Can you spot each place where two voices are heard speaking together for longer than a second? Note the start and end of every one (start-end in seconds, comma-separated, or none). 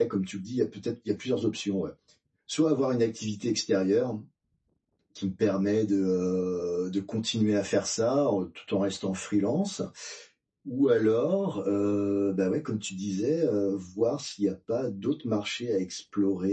none